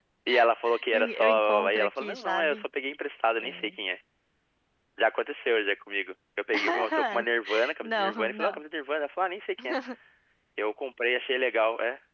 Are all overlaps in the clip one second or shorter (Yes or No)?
No